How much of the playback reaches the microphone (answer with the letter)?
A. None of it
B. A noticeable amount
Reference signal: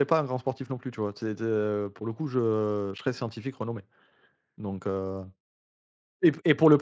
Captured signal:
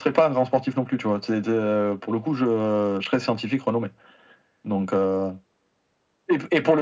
B